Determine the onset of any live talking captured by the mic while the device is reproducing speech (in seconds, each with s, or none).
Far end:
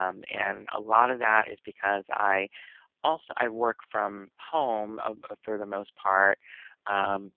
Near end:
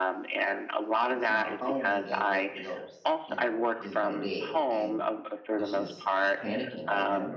1.1 s